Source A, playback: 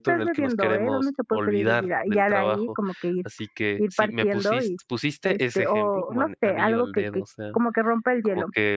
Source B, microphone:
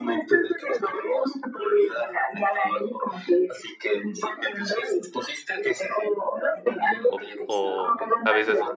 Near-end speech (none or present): present